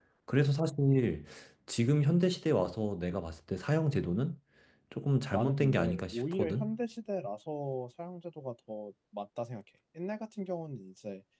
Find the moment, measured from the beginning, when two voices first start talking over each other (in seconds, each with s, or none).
5.3 s